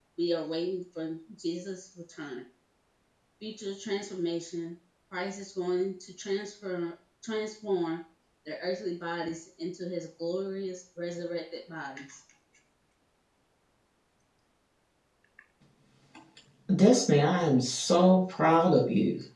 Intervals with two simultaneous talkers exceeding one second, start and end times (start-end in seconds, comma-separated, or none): none